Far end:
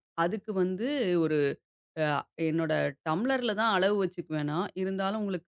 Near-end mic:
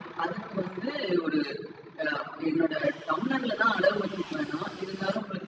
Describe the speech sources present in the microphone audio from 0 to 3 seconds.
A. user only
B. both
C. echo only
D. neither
C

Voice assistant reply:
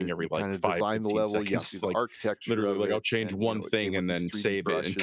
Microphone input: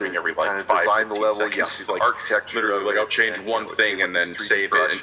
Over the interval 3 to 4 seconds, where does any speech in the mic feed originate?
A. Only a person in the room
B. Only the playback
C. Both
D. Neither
B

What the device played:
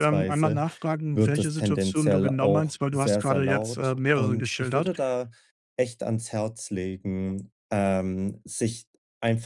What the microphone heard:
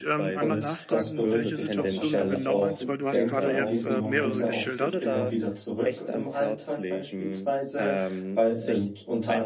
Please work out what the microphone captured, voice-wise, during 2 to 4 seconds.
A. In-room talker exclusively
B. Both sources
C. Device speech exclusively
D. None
B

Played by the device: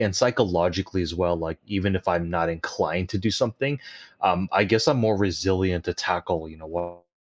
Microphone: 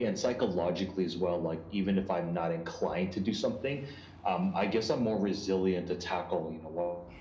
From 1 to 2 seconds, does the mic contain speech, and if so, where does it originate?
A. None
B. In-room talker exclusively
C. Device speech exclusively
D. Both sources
C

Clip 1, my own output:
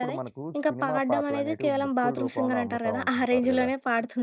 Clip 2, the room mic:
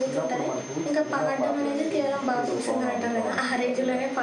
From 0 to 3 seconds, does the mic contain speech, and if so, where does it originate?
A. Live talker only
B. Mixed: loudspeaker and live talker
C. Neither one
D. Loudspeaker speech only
D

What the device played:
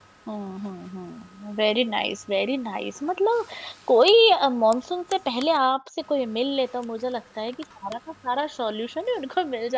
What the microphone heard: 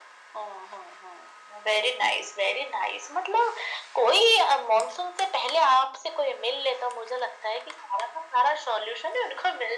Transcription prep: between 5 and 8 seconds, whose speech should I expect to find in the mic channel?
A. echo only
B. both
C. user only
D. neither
A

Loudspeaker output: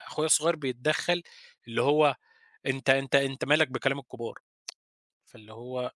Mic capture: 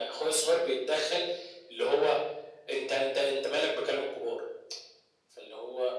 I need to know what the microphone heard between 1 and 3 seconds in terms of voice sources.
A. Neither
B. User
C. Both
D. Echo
D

